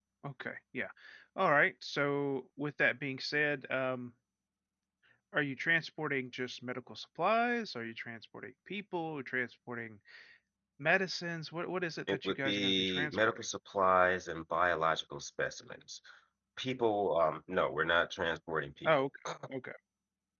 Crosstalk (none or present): present